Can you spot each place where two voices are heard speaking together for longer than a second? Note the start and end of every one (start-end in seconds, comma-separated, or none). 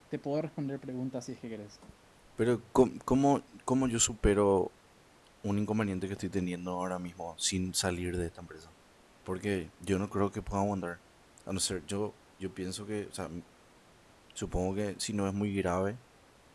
none